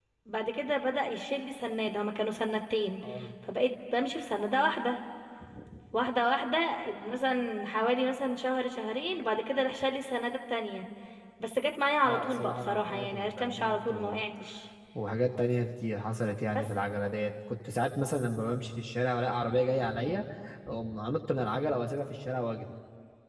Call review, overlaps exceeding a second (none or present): present